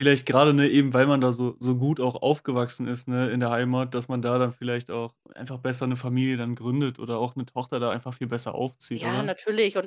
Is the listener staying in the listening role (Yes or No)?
No